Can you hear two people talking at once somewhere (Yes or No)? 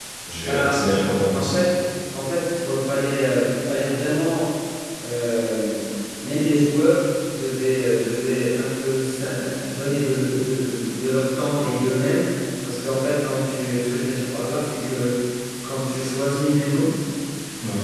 Yes